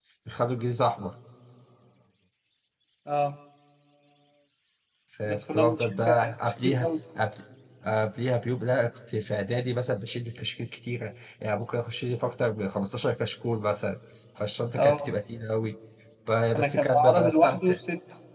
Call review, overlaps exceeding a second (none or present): present